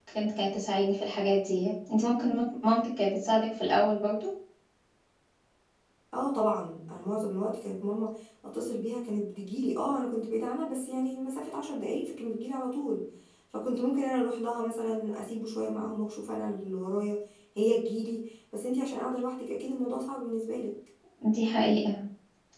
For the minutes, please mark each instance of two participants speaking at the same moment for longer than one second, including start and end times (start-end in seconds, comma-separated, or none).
none